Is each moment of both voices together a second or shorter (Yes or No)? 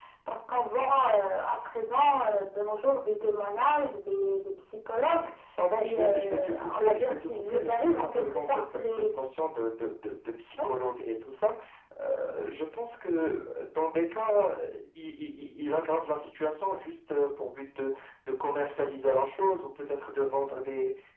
No